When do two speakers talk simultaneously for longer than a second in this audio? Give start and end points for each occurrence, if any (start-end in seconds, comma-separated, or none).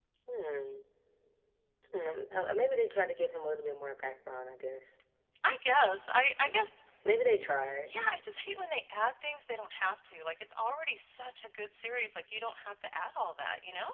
none